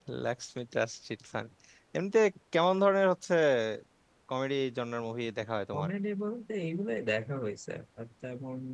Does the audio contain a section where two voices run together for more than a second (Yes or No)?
No